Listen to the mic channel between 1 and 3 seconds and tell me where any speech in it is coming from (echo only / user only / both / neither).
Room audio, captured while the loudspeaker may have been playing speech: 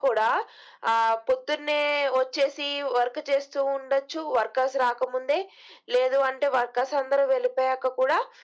echo only